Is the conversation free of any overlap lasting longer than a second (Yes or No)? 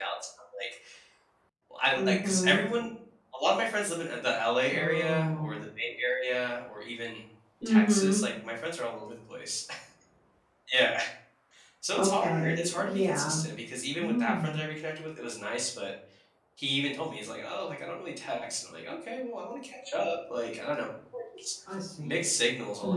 No